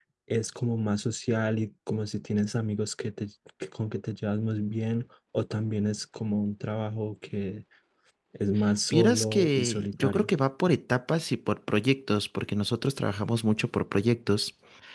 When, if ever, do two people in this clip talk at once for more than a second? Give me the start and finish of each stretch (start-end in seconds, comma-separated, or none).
8.9-10.3